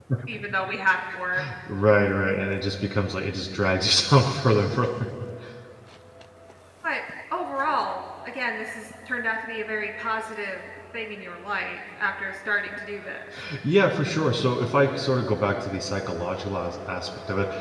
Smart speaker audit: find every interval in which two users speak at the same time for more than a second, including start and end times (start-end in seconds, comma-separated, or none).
none